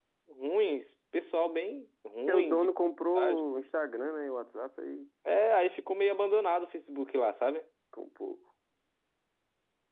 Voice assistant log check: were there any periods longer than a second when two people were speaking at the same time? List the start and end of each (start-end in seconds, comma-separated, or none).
none